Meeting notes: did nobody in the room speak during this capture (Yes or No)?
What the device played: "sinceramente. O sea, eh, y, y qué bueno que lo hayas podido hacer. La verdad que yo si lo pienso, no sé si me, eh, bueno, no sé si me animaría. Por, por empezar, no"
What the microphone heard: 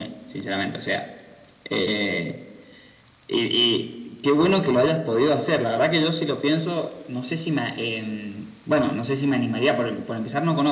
Yes